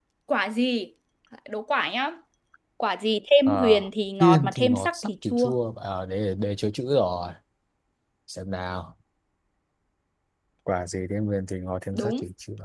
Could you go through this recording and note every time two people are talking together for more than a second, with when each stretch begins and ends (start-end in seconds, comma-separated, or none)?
4.2-5.5